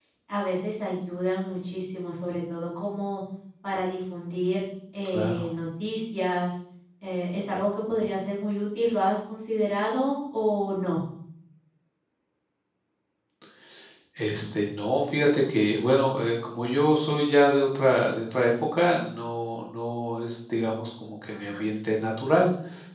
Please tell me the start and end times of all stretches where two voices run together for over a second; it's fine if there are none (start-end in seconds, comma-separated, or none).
none